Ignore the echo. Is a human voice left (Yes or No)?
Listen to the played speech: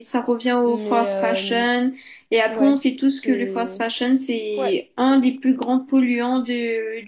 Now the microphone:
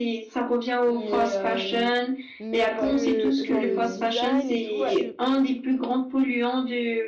Yes